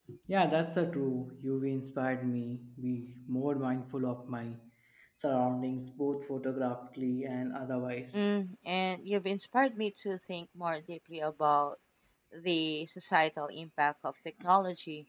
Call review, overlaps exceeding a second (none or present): none